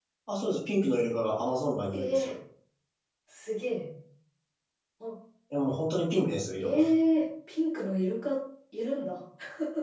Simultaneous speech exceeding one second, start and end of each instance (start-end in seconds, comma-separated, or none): none